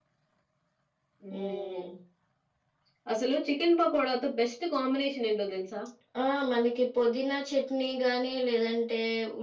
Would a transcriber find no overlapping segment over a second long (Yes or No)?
Yes